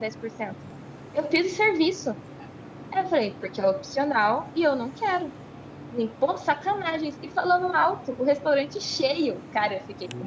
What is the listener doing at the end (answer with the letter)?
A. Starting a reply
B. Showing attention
B